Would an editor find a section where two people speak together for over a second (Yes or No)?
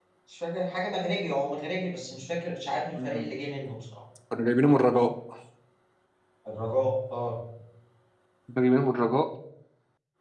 No